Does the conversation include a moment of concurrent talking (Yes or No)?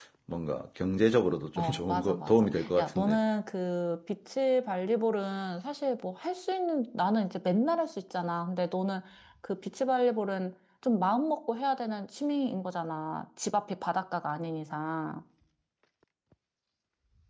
Yes